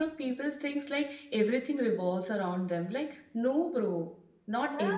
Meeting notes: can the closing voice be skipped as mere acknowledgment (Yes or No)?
Yes